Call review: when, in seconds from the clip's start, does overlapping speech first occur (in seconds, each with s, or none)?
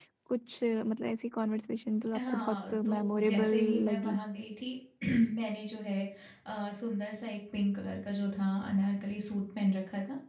2.1 s